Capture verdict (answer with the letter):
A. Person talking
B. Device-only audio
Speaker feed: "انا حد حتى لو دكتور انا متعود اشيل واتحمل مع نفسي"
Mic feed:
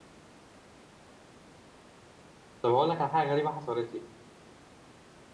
A